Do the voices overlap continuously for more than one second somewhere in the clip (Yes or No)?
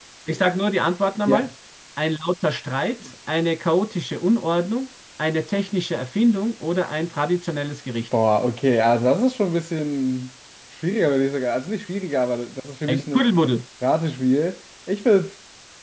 No